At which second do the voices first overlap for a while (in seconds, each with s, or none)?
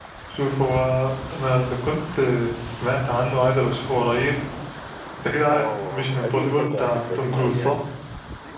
5.5 s